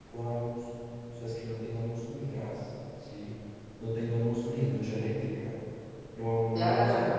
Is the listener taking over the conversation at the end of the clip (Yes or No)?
Yes